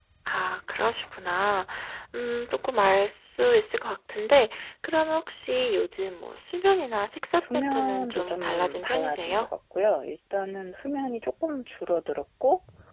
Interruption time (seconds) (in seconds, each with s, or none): 7.4 s